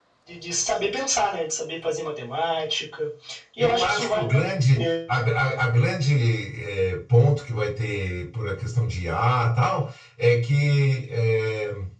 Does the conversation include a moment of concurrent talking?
Yes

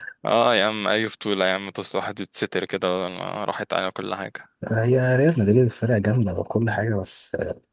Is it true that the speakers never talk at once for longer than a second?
Yes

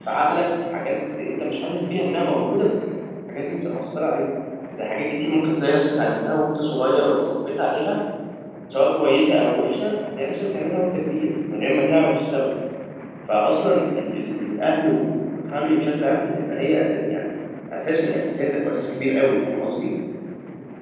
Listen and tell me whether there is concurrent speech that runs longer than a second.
No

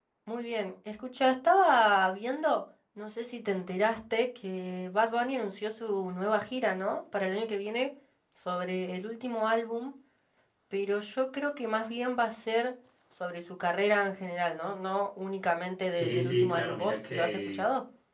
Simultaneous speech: Yes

